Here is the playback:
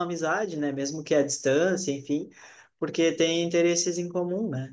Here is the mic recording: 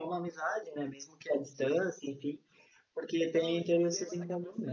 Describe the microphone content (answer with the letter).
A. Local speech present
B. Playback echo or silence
A